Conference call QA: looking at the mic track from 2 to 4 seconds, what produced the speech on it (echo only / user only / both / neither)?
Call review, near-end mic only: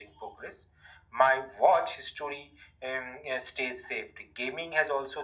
echo only